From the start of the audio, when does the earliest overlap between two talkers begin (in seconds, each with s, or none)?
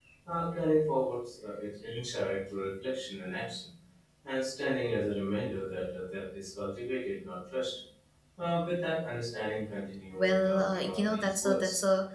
10.2 s